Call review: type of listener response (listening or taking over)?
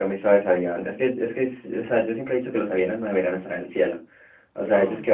listening